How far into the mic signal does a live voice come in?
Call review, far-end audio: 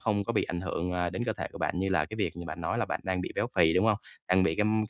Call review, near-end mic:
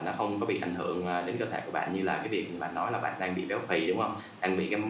none

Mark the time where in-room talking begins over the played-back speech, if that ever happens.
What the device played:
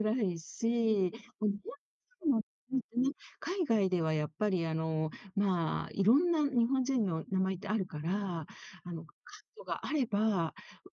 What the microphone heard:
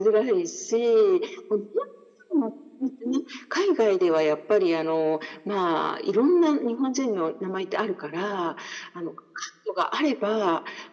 none

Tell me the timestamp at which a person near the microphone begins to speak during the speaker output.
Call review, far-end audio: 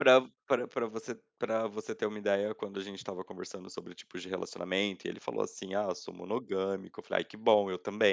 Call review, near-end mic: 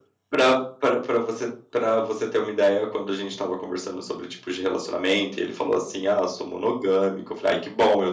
none

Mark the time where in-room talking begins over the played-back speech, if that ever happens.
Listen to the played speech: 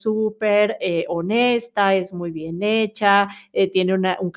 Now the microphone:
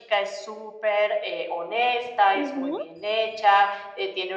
2.3 s

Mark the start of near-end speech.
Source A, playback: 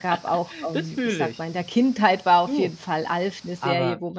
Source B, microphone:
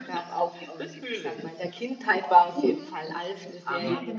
2.6 s

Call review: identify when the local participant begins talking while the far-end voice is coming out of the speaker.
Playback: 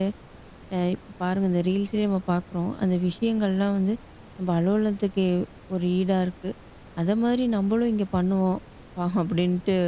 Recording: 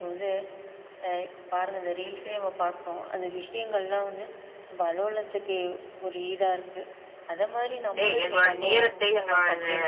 8.0 s

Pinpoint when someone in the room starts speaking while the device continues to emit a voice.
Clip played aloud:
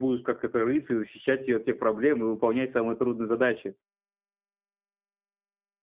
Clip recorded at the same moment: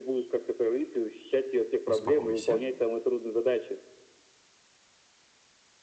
1.9 s

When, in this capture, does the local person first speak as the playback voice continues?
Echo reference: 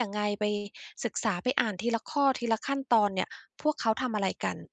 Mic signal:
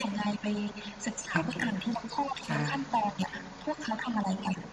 1.4 s

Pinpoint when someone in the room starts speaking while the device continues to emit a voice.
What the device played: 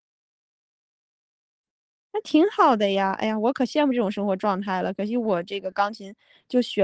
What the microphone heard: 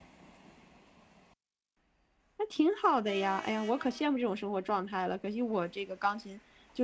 none

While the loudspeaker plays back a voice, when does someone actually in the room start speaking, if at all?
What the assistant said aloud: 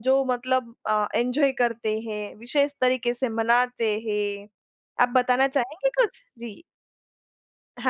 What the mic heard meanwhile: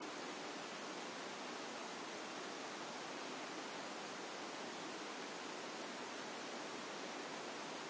none

